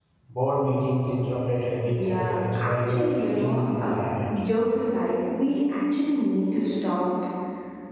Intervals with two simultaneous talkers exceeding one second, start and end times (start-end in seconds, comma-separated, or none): 1.8-3.9